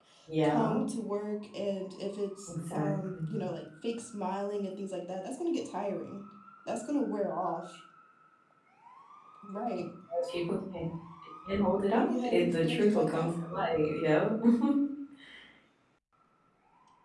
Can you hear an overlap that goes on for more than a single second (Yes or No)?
Yes